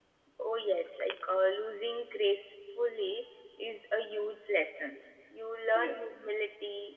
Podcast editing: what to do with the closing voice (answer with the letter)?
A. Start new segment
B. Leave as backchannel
B